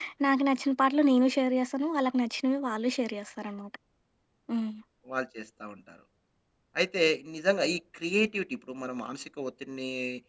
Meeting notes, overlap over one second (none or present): none